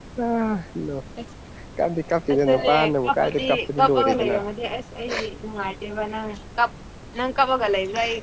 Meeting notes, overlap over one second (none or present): present